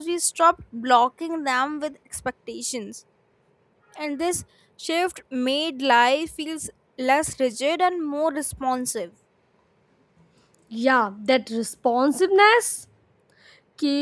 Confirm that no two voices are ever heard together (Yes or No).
Yes